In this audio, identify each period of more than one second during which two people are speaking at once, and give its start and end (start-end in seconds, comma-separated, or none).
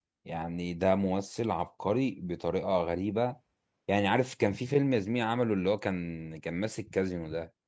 none